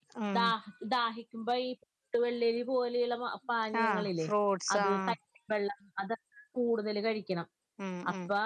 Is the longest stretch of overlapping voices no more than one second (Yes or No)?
Yes